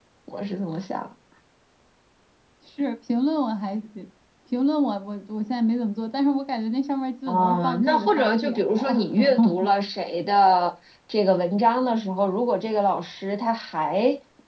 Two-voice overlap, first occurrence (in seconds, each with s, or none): 7.3 s